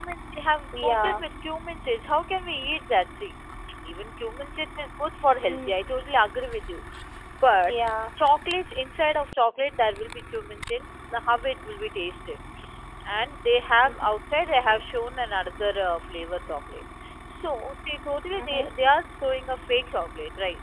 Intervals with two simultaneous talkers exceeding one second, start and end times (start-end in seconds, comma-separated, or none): none